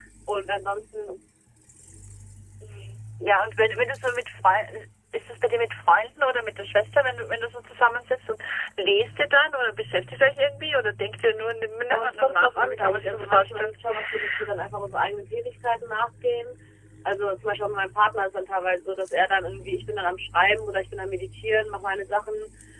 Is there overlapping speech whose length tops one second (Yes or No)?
Yes